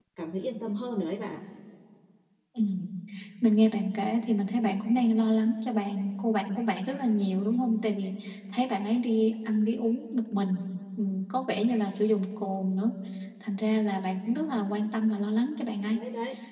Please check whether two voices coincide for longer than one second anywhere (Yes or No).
No